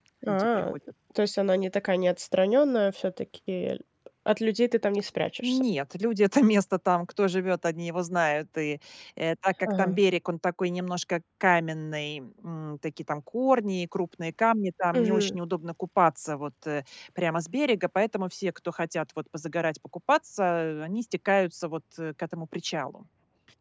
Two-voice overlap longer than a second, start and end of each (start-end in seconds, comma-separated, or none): none